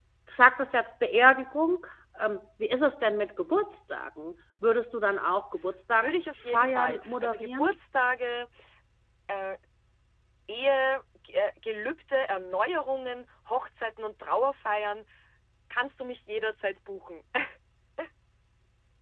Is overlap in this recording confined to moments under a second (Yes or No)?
No